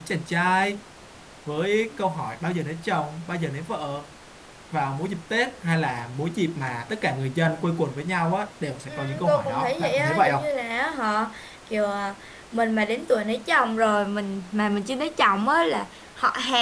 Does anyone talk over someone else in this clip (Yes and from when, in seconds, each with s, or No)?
Yes, from 8.9 s